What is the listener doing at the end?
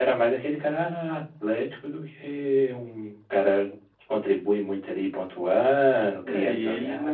taking over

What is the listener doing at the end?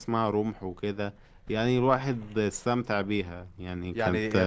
taking over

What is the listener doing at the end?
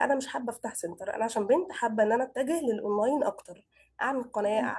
listening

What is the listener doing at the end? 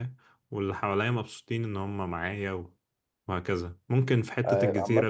taking over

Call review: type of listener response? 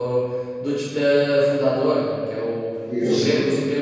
listening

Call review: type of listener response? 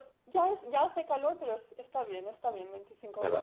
taking over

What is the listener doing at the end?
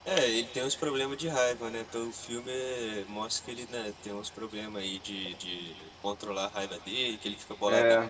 listening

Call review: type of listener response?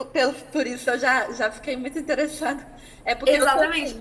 taking over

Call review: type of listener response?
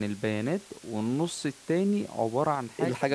listening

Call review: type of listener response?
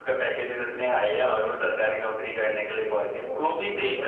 listening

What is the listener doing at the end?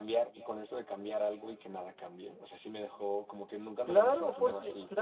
taking over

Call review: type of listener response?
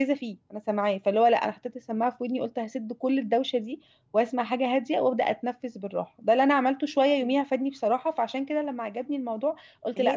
listening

